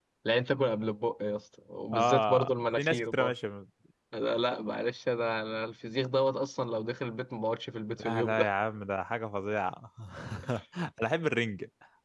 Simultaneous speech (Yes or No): Yes